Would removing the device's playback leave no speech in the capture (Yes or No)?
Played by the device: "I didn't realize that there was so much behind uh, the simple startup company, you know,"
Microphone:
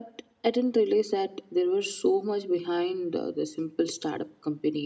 Yes